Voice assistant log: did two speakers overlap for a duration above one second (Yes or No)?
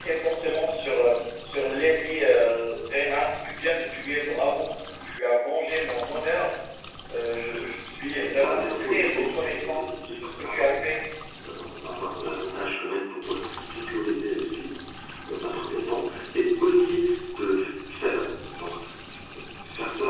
Yes